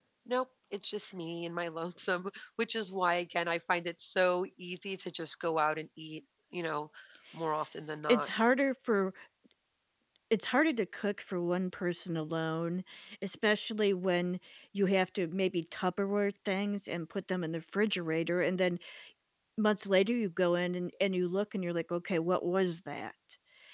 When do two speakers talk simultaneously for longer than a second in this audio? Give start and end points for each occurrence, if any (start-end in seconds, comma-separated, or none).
none